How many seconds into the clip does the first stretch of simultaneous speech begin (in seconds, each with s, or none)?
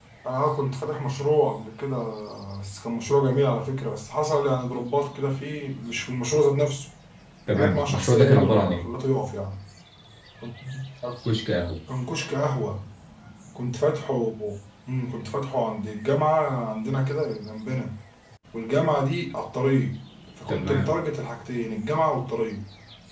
7.6 s